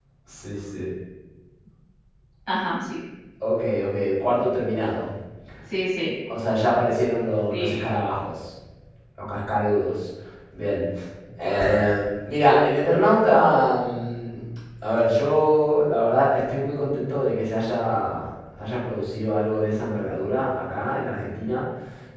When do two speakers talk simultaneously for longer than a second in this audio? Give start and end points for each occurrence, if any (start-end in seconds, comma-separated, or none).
none